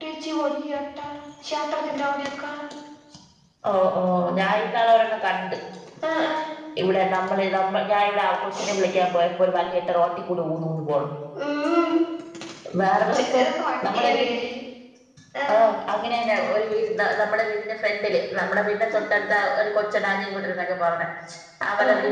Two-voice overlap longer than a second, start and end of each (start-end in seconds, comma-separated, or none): none